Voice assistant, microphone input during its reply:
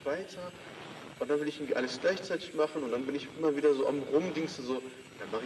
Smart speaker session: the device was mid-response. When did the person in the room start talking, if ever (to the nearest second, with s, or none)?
none